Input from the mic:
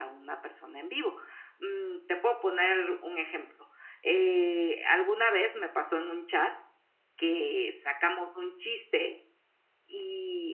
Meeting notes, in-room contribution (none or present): none